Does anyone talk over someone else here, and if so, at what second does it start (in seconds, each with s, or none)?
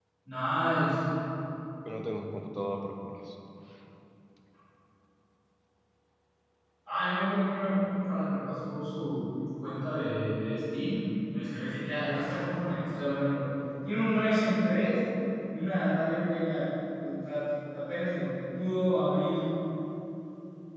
none